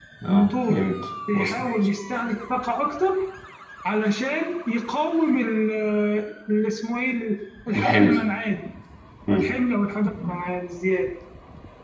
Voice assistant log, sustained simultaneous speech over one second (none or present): none